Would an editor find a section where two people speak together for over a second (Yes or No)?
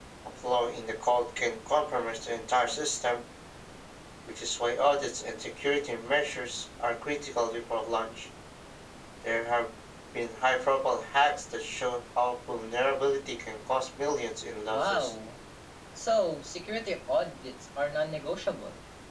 No